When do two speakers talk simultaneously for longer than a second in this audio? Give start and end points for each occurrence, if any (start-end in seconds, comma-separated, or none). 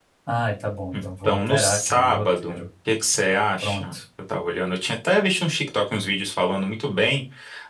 0.9-2.6